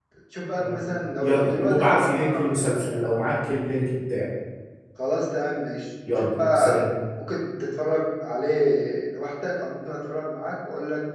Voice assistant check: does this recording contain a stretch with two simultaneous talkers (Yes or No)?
Yes